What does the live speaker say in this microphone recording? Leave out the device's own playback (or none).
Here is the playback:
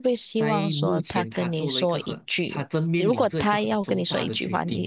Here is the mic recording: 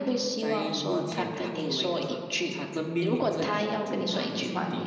none